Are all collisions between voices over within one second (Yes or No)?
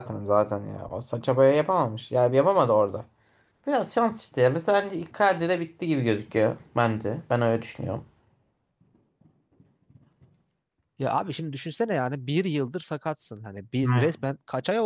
Yes